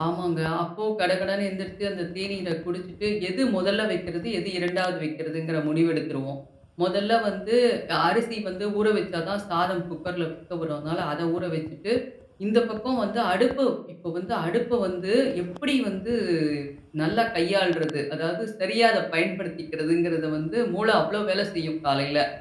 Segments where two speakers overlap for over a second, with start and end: none

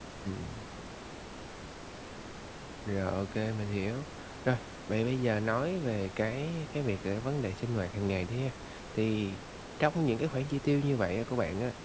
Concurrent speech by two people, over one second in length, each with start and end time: none

